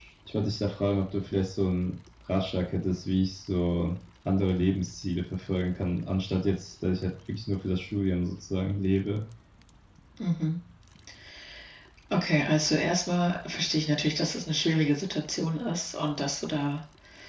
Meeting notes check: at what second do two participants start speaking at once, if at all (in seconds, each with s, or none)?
none